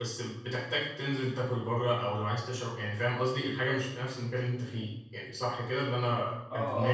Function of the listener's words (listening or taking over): taking over